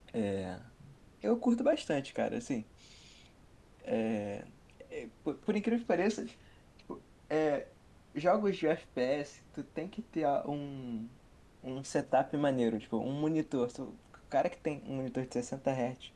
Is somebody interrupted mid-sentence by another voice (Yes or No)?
No